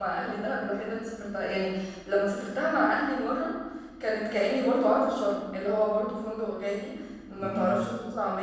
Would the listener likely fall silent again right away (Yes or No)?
Yes